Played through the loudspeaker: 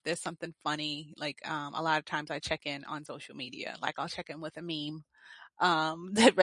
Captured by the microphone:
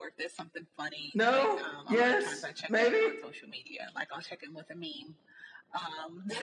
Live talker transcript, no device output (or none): No? Yes? Maybe?